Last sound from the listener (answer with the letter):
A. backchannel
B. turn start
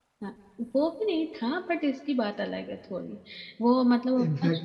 A